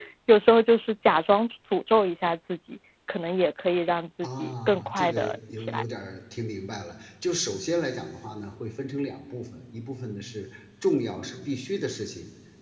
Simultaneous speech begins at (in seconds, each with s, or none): 4.2 s